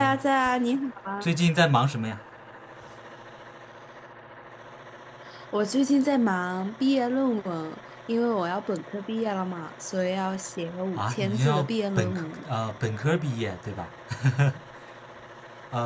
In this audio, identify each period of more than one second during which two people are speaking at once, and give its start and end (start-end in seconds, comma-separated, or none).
11.0-12.4